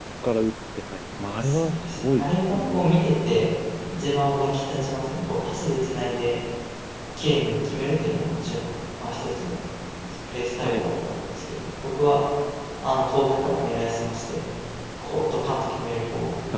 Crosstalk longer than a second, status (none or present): present